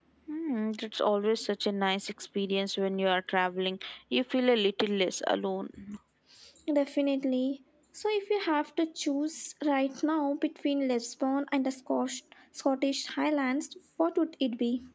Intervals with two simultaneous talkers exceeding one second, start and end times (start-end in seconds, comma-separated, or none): none